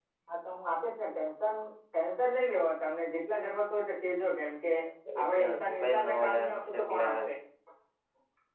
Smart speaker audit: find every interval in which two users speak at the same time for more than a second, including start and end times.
5.2-7.1

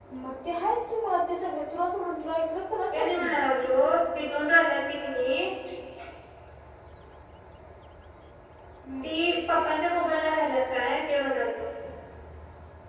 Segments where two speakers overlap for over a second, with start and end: none

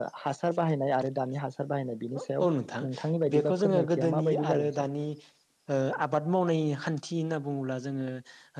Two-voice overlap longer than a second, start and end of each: 3.4-4.7

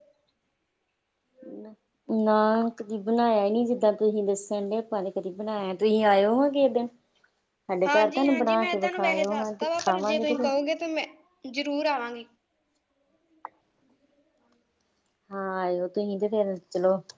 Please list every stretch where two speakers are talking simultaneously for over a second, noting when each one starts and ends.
7.9-10.5

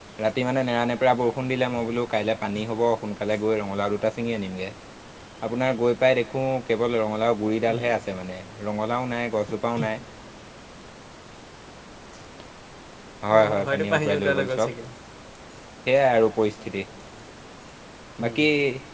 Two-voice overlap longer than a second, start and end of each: 13.3-14.7

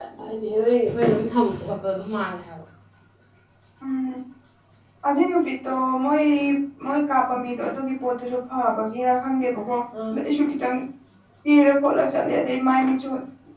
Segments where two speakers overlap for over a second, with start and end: none

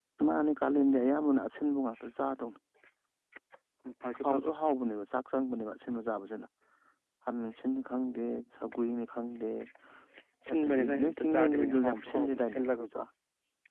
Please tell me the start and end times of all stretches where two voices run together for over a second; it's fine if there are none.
10.5-13.0

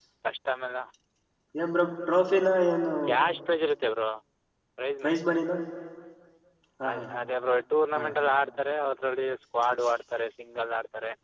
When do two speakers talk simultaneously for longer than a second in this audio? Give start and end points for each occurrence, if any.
none

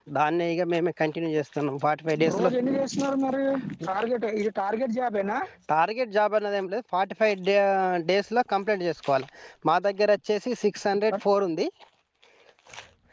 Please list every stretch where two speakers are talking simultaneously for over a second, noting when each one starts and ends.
none

